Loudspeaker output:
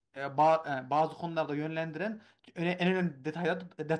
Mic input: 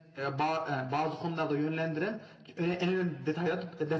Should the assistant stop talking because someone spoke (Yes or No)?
No